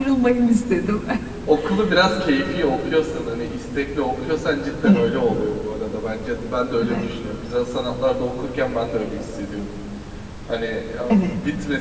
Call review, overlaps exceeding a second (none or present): none